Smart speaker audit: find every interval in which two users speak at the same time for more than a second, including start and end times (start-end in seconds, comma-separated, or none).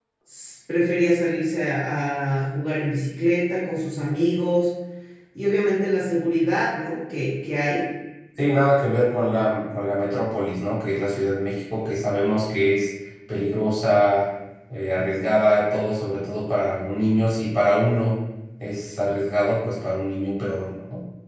none